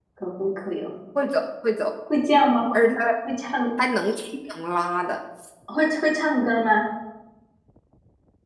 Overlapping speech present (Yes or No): No